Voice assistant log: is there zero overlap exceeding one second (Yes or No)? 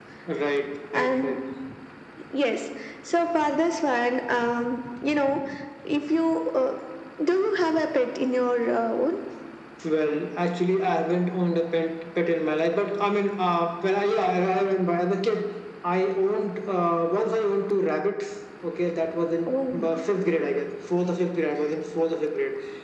Yes